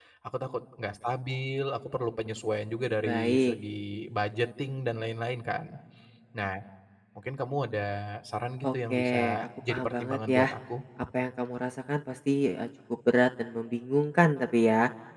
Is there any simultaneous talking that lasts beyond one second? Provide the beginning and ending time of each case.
8.6-10.5

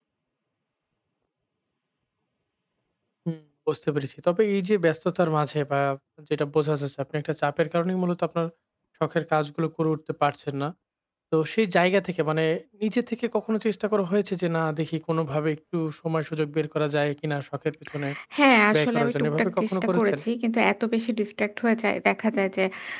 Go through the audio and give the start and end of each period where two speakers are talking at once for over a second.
18.7-20.2

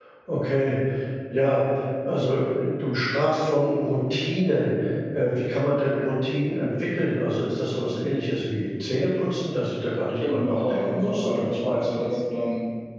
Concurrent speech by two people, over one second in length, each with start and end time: 10.2-12.1

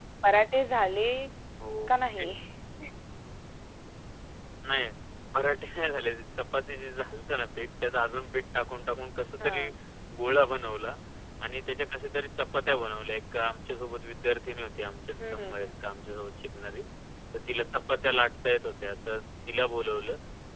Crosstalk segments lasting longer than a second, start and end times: none

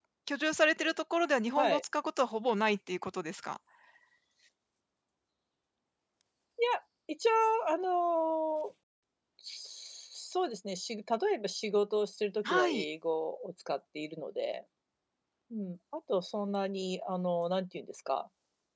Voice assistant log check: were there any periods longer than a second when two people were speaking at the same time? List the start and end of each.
none

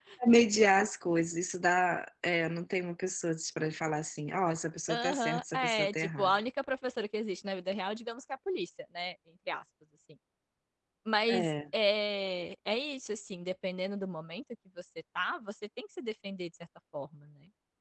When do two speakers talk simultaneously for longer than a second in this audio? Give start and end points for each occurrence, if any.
4.9-6.3

